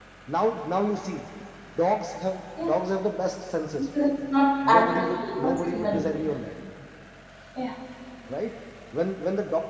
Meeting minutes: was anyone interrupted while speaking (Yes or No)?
Yes